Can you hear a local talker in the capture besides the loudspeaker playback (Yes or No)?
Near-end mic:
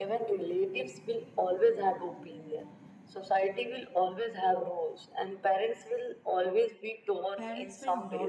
Yes